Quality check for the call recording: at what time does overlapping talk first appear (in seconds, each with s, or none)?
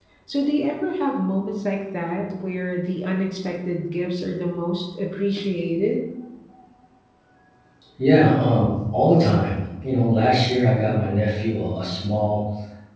none